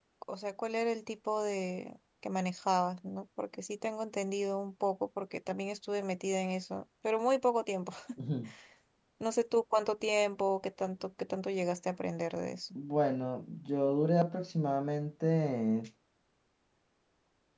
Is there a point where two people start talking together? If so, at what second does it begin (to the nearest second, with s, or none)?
none